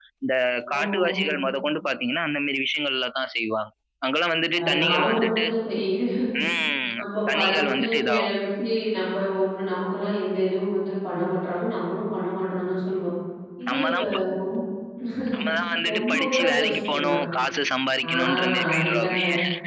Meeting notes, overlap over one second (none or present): present